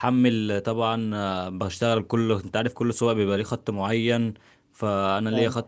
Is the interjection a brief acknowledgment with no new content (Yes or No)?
Yes